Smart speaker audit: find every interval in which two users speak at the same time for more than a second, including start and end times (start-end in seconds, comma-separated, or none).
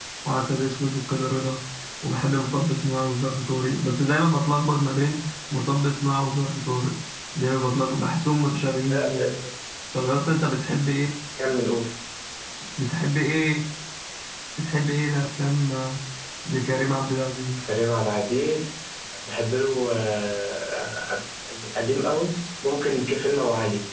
none